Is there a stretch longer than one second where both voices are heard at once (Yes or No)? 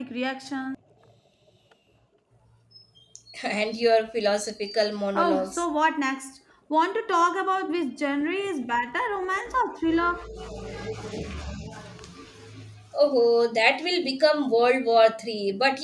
No